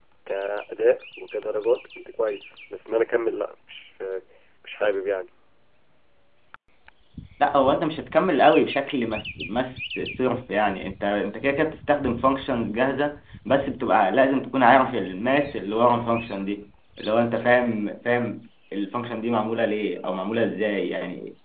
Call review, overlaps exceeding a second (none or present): none